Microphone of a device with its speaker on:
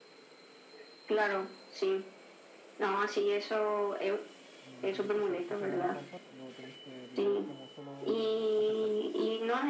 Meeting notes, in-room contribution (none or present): present